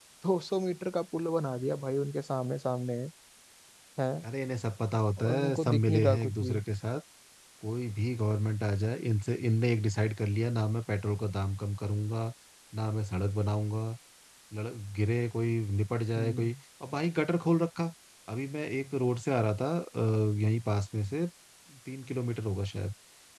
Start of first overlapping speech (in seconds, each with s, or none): 5.2 s